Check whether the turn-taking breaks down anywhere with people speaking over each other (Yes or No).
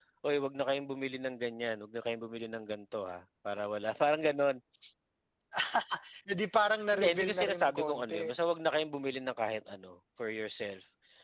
Yes